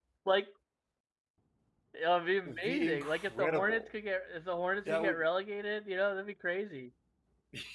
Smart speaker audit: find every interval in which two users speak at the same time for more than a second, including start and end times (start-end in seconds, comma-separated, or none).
2.4-3.8